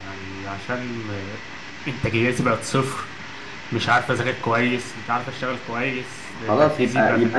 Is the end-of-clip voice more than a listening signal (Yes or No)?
Yes